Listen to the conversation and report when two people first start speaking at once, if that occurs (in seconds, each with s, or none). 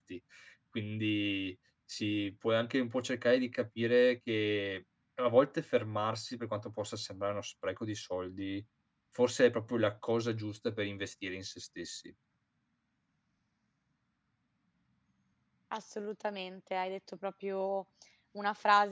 none